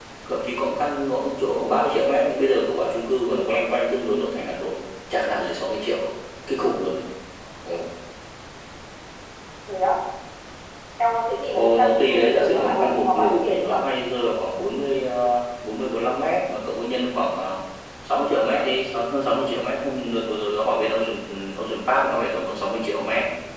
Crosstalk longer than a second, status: present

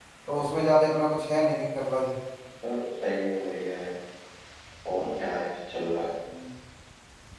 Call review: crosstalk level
none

